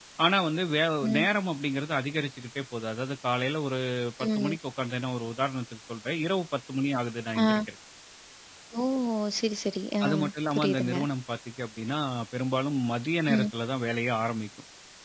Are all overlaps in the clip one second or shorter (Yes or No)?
Yes